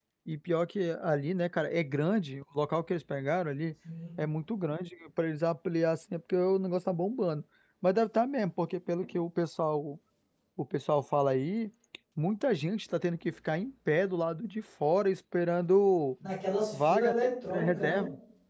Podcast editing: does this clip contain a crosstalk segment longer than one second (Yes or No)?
No